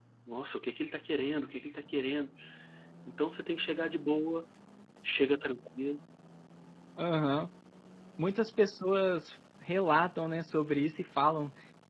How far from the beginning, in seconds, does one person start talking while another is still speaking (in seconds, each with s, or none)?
none